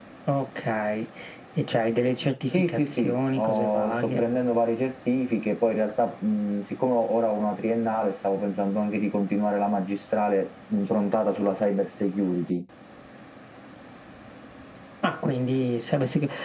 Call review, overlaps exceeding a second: present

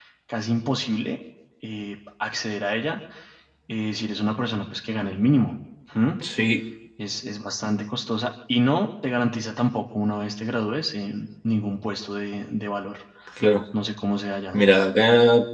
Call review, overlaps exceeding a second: none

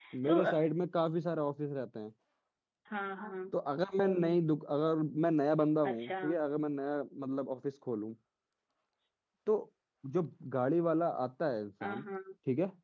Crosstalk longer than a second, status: none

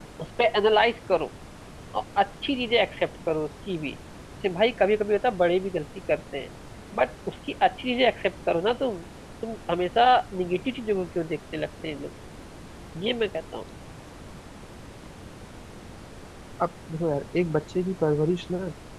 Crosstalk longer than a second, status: none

